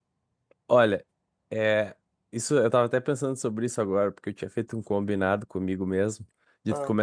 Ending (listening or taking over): listening